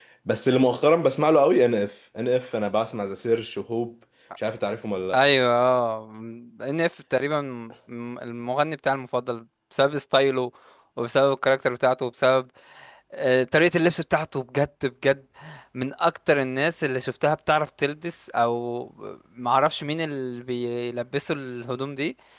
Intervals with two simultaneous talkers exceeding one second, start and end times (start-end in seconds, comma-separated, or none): none